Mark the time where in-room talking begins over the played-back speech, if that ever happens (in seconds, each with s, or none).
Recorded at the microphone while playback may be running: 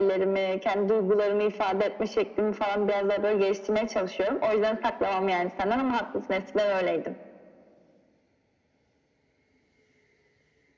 none